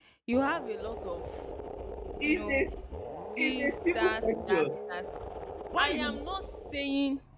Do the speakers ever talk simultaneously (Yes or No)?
Yes